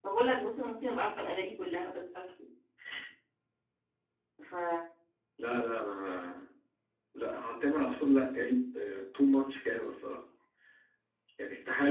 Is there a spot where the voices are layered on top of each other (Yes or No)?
No